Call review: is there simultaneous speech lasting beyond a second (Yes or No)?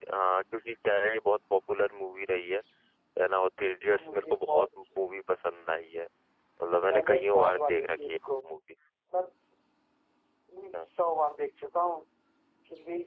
Yes